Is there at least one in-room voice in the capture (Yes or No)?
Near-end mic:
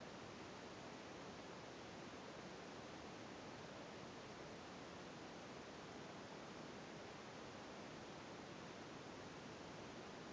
No